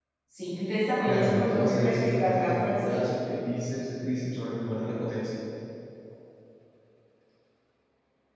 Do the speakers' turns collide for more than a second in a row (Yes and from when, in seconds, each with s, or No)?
Yes, from 1.1 s